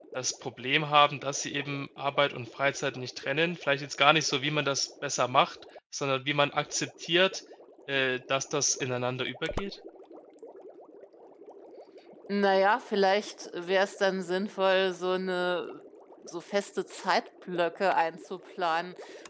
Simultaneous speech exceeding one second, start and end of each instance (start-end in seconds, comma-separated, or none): none